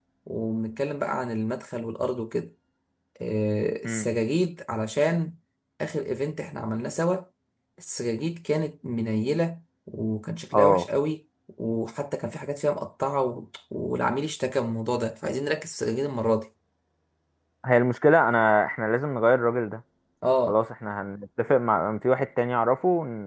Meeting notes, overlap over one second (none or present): none